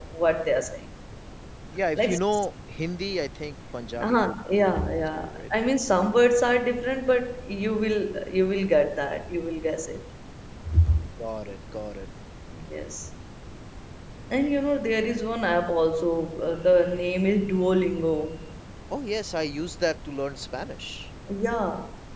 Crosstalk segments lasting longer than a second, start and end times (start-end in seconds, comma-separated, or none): 4.1-5.4